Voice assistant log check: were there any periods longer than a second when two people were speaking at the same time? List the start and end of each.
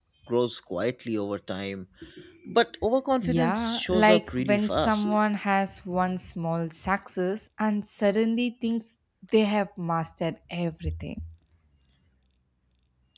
3.2-5.2

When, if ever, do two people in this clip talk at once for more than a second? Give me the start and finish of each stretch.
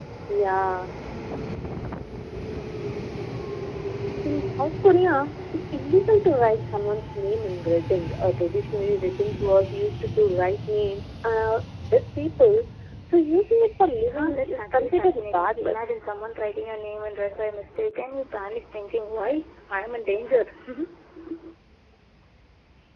14.1-15.8

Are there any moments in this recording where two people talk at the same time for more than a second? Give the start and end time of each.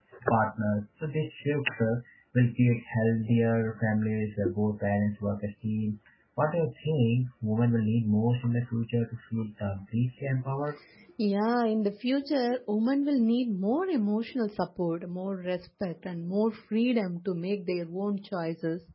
none

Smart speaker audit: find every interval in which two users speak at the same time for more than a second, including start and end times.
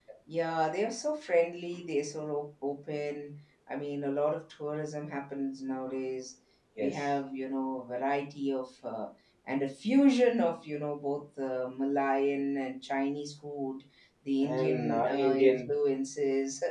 14.4-15.7

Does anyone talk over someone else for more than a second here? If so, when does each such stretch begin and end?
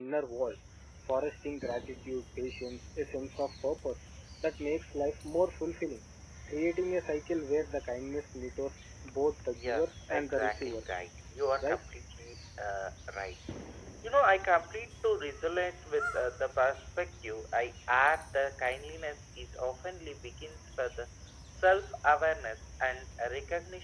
9.6-11.0

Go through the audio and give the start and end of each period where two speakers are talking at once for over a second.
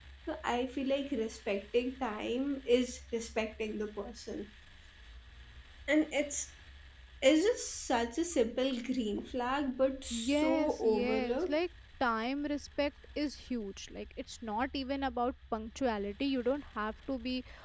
10.1-11.6

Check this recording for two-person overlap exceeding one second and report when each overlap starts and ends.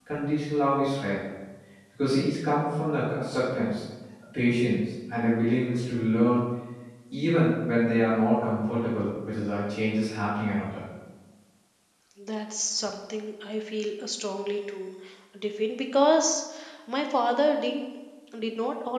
none

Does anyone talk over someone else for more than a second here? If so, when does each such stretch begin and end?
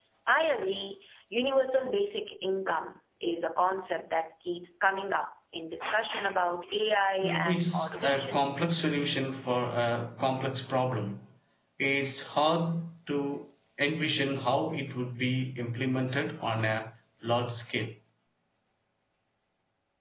7.2-8.5

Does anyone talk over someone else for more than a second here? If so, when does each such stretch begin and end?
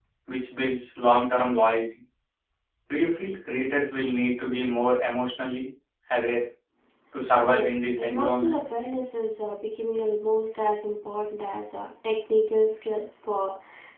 7.4-8.6

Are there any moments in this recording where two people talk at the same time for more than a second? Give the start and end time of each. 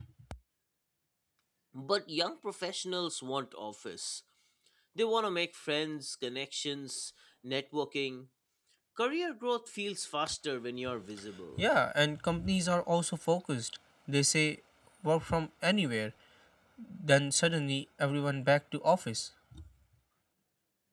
none

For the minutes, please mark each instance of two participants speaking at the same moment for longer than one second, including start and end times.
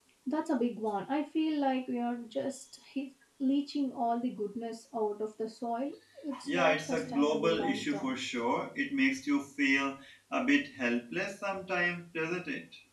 6.4-8.2

